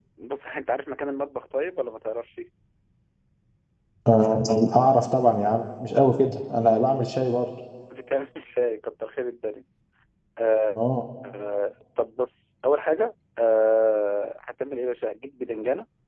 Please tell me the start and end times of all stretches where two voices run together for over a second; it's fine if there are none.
none

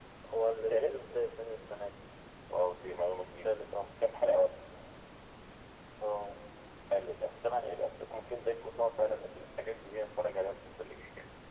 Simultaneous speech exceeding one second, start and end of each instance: none

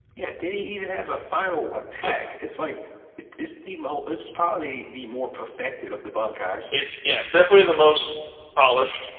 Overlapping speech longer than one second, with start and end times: none

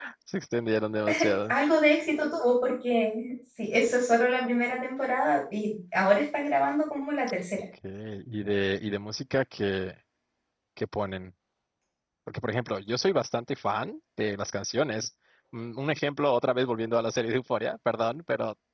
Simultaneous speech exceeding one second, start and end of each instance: none

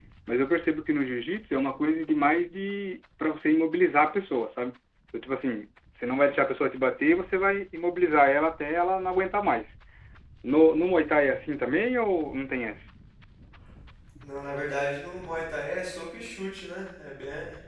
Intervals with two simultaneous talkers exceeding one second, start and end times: none

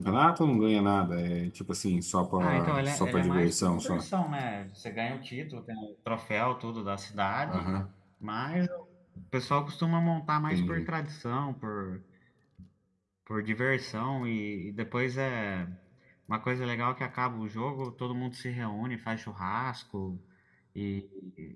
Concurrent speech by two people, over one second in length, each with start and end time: 2.4-4.0

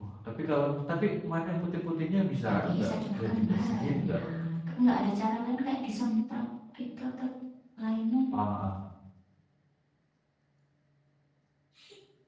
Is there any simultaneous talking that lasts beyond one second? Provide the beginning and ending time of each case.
2.5-4.2

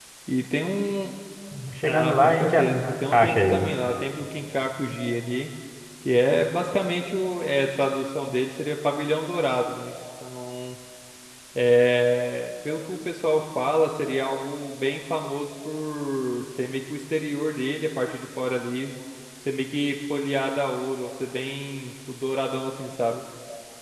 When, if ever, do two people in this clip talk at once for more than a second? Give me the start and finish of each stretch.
1.9-3.7

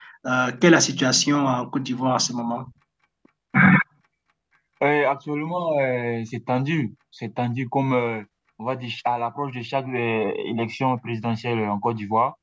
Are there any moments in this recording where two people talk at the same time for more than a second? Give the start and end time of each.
none

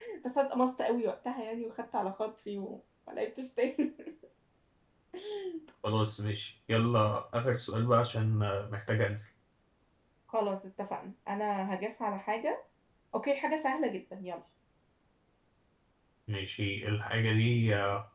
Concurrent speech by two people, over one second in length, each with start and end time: none

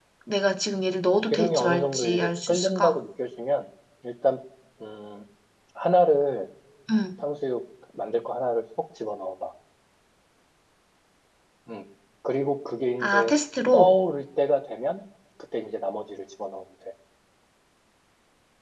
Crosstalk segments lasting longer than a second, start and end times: 1.3-3.0

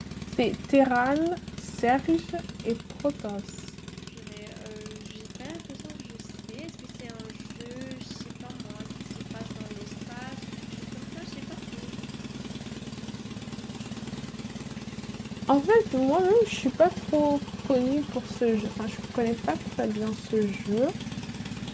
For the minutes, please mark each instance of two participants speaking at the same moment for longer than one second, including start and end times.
none

